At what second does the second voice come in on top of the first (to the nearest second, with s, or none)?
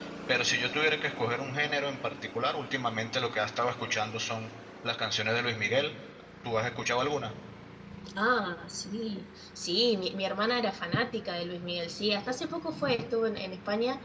none